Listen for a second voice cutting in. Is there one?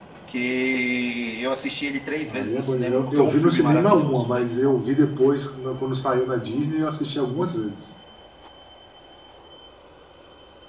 Yes, from 2.2 s

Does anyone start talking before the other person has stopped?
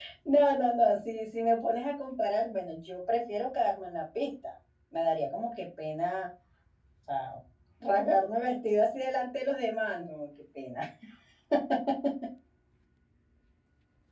No

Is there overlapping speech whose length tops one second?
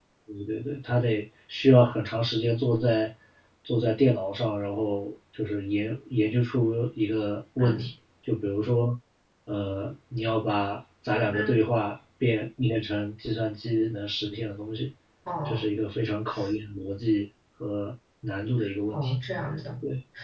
No

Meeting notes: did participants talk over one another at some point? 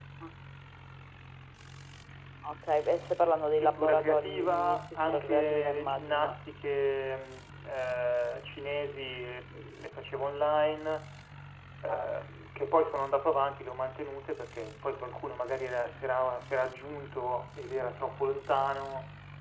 Yes, from 3.6 s

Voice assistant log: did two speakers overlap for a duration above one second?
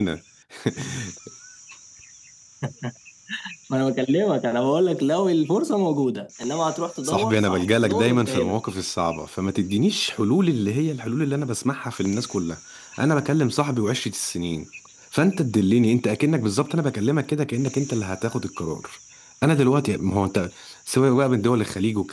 Yes, from 7.0 s

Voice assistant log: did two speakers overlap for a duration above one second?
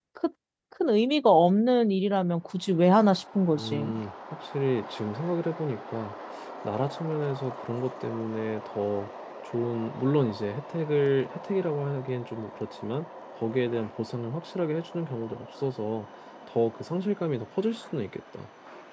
No

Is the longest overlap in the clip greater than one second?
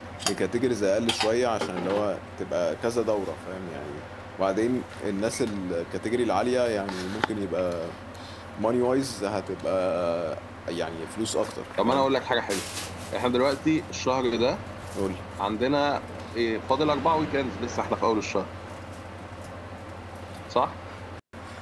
No

